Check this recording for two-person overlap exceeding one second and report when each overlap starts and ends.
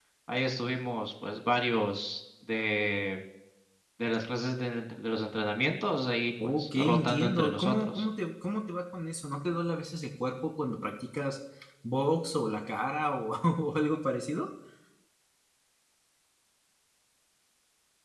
6.4-8.0

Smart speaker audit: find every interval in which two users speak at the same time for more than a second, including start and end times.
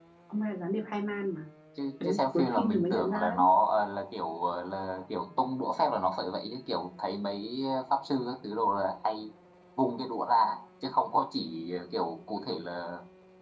2.0-3.4

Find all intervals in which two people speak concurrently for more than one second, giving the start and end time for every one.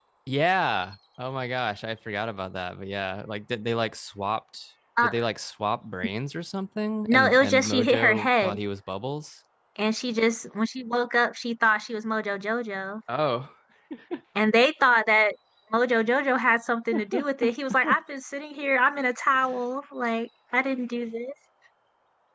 7.1-8.5

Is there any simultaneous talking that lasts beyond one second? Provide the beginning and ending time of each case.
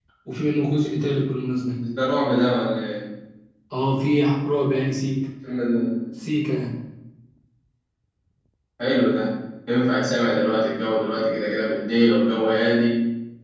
none

